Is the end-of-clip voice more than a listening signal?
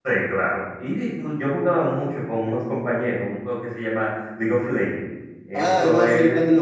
Yes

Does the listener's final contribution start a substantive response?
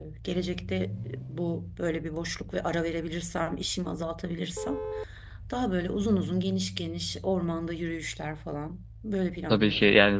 Yes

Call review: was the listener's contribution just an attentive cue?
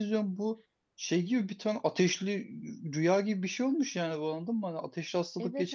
Yes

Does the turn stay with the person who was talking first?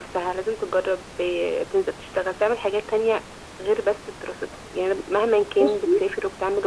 Yes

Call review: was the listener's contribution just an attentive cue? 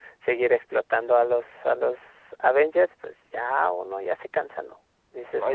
No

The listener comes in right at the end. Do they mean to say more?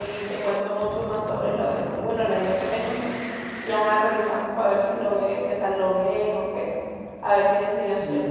Yes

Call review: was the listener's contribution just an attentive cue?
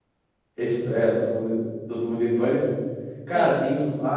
Yes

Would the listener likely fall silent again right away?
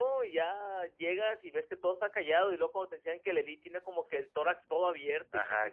No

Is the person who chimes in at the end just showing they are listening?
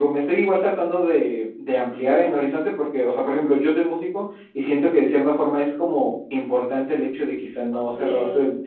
Yes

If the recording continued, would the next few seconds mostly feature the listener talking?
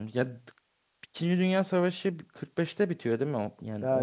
Yes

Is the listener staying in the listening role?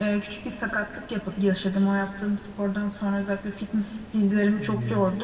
Yes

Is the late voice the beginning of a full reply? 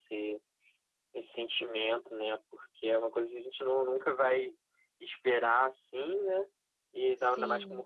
No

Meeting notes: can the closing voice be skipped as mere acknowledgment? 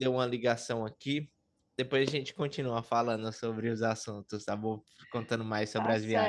No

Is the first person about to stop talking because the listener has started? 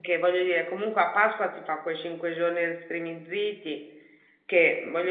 No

